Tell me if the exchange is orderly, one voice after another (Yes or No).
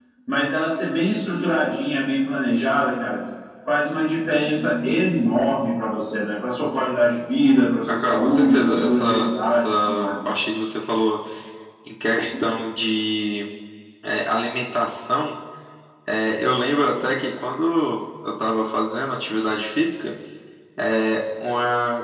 No